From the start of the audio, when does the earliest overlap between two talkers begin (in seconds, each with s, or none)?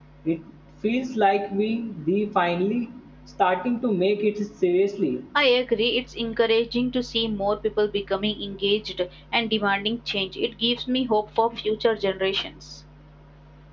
none